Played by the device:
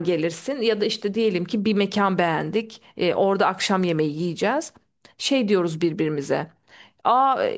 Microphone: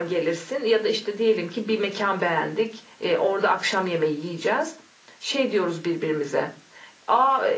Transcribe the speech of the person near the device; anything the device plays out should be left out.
none

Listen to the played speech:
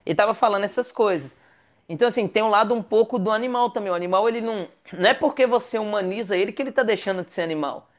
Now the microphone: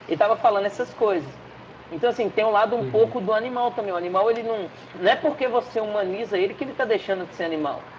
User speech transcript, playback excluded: Uhum,

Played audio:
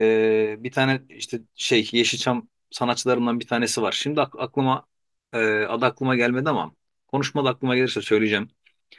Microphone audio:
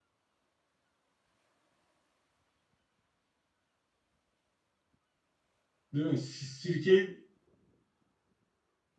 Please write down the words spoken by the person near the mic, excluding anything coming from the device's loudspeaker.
Değil mi? Si- Sirke,

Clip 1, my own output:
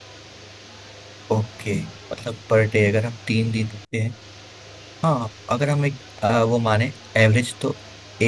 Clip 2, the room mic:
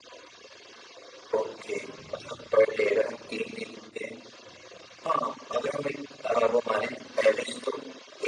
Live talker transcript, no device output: none

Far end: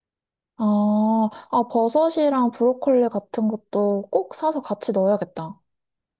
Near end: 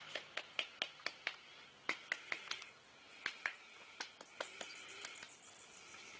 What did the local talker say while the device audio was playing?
none

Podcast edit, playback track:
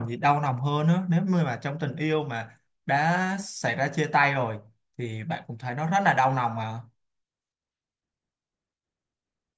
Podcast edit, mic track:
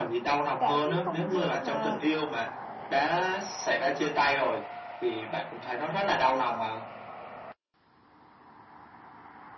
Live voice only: tạo cái không gian mà

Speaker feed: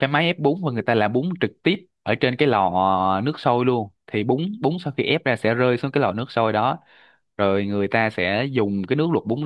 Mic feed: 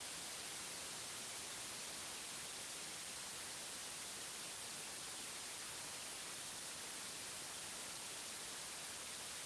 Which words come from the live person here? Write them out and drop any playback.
none

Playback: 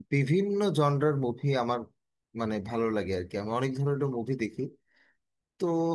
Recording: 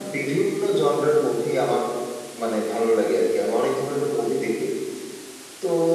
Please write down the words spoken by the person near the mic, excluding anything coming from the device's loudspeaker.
none

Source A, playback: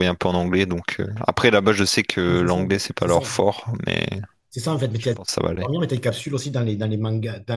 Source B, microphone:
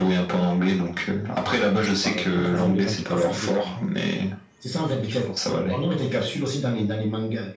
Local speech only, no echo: pense qu'ils parlent. Il y en a pas mal de gens qui parlent anglais quand même.

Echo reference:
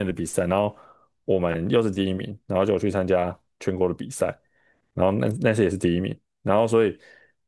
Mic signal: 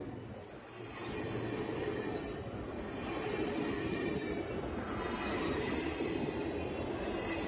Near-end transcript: none

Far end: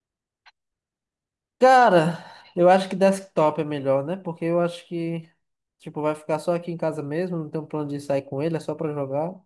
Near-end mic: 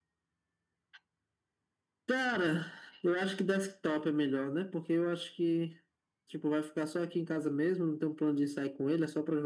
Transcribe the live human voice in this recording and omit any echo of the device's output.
none

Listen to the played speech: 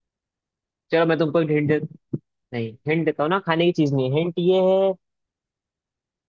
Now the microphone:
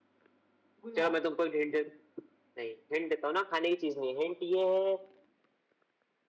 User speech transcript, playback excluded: गुलाब

